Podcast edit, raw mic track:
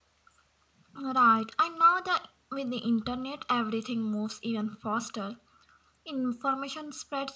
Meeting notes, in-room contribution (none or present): none